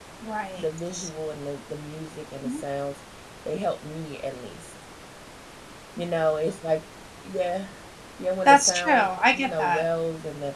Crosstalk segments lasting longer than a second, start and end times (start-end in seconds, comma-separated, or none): 8.4-9.8